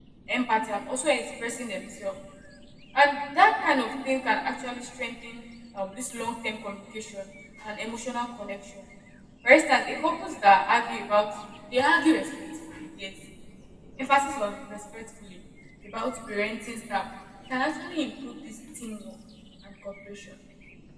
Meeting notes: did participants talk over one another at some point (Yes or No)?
No